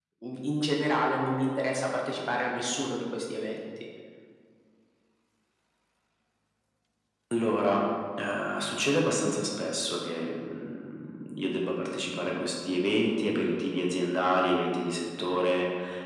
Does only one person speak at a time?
Yes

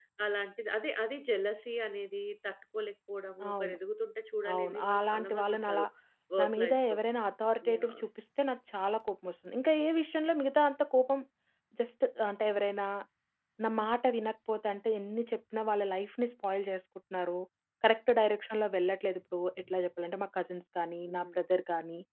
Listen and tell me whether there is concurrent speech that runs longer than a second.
Yes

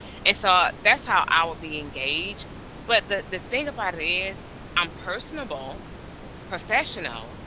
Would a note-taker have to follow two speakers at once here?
No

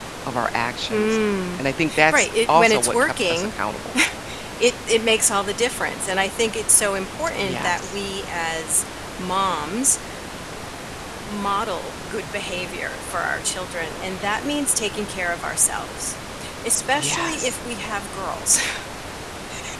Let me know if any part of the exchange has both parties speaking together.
Yes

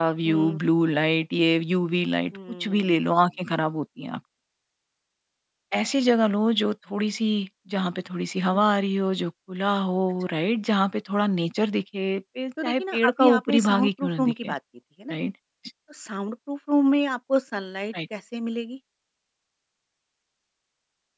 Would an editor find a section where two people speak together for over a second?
Yes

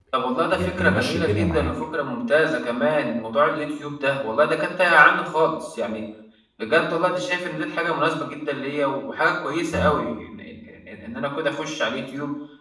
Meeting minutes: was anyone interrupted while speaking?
Yes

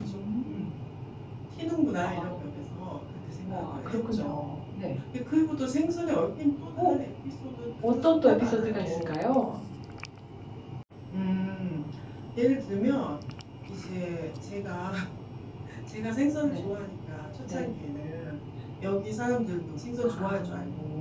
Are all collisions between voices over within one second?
No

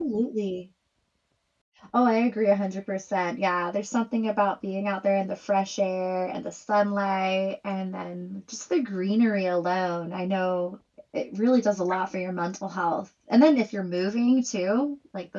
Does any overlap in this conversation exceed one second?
No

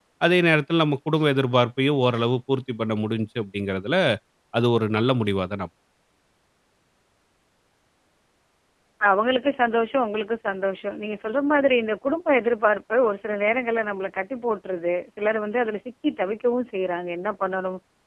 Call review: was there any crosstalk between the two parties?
No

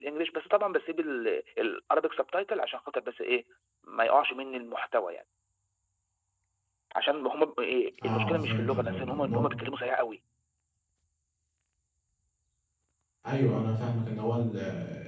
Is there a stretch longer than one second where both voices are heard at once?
Yes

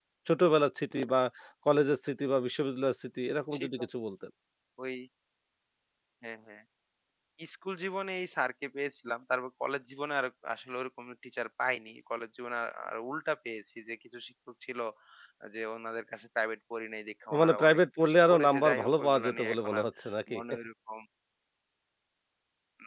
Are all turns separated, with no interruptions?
No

